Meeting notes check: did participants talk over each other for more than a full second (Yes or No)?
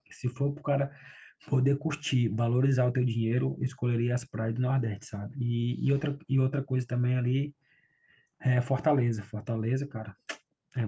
No